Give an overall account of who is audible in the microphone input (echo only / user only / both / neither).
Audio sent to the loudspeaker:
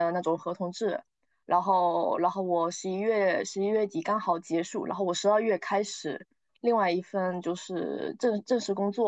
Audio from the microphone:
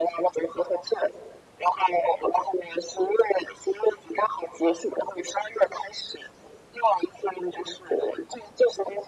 echo only